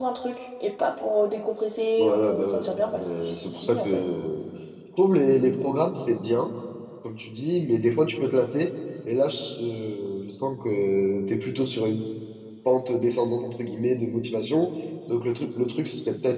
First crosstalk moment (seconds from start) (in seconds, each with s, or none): 2.0 s